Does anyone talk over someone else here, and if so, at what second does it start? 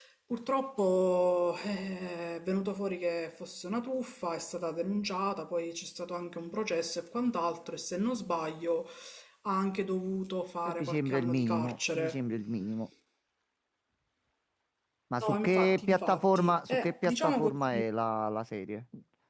10.7 s

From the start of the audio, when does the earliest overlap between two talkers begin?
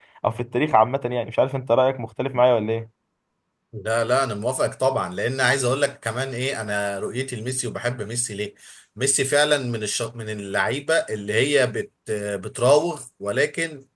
none

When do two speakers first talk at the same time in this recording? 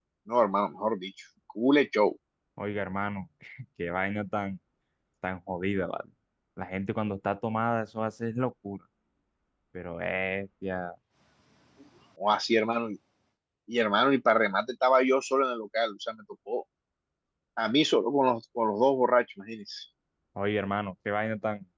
none

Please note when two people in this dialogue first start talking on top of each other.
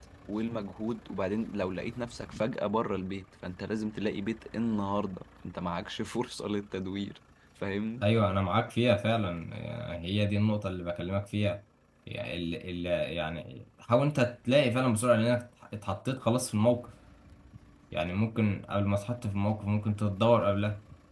none

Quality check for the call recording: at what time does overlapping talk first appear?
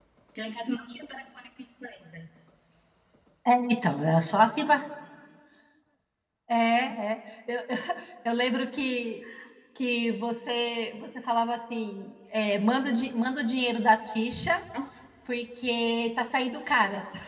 none

